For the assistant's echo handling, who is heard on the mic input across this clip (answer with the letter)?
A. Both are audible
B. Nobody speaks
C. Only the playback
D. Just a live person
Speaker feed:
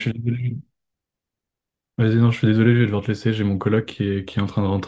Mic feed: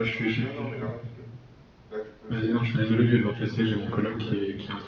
A